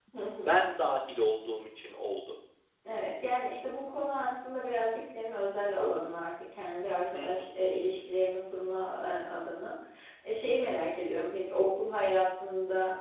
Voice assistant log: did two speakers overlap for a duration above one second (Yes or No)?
No